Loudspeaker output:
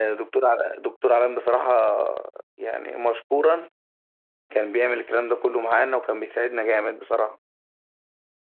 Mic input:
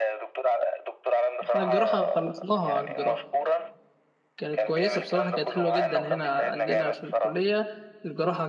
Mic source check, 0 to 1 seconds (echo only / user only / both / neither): echo only